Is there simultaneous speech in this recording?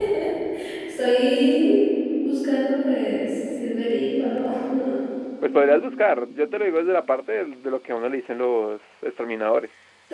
No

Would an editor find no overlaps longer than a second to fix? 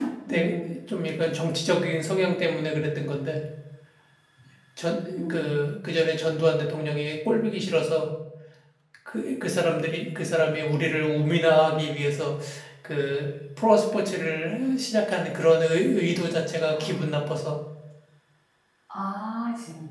Yes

